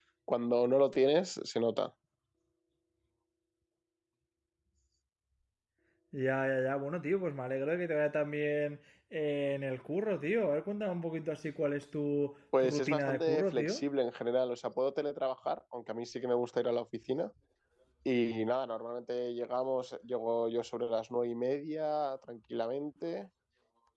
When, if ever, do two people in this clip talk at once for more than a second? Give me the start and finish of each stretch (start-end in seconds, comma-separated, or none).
12.6-13.8